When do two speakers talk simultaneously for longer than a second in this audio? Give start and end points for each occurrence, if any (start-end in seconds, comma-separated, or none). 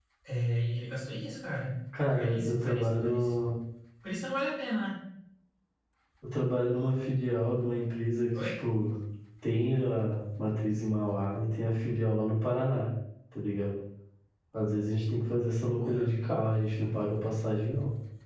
2.1-3.3